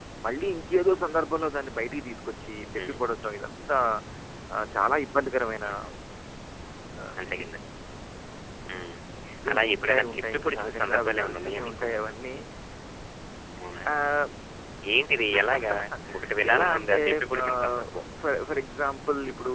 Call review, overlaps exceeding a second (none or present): present